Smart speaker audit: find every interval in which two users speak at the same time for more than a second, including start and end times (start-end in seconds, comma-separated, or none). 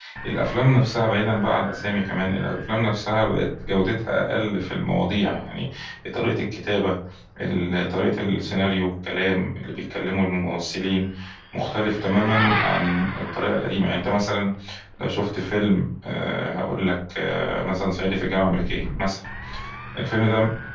none